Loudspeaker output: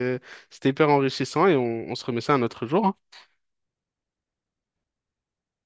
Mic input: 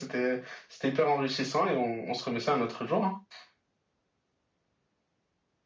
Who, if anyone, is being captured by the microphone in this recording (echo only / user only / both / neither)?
echo only